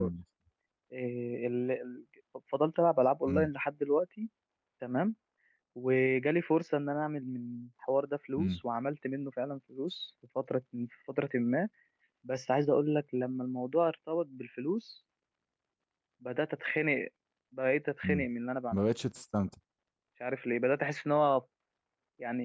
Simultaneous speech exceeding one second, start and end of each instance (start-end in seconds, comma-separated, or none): none